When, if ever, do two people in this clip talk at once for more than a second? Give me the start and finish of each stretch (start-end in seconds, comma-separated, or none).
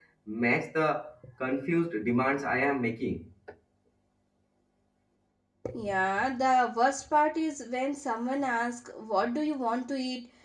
none